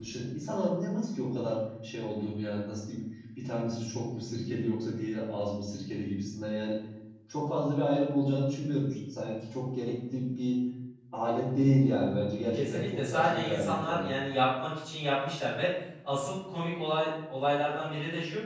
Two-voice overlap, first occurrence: 13 s

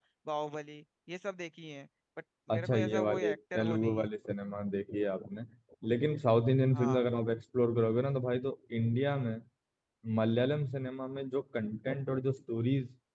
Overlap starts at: 3 s

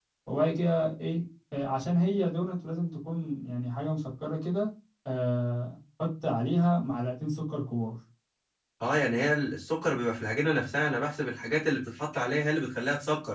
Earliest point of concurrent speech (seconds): none

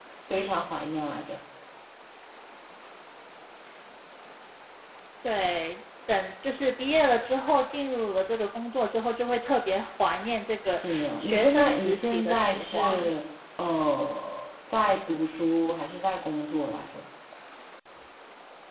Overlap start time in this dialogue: 11 s

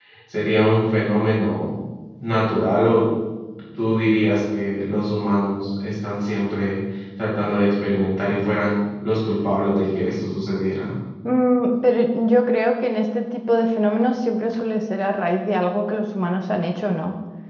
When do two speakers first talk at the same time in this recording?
none

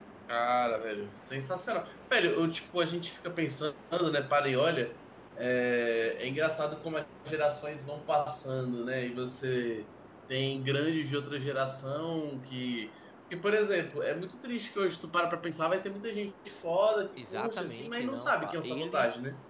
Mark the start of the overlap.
17 s

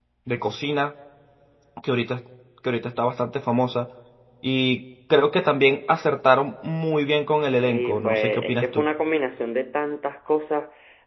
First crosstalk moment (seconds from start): 8 s

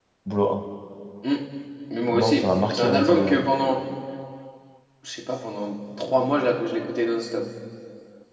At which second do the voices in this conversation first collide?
2 s

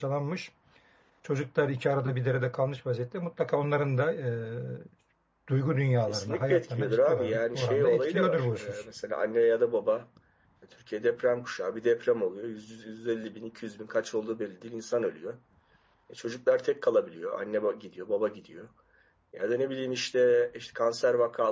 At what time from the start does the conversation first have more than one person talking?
6 s

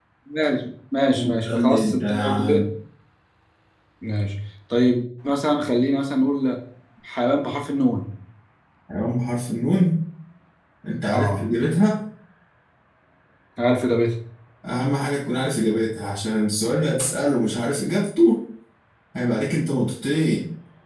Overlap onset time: 1 s

